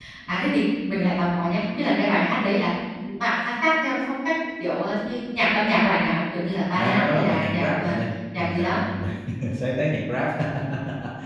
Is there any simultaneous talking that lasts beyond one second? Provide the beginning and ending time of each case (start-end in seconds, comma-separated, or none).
6.7-7.9